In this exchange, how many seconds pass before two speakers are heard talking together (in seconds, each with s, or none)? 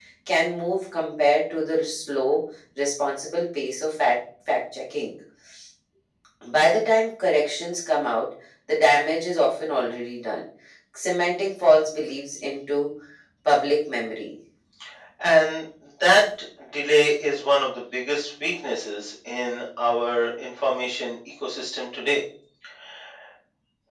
none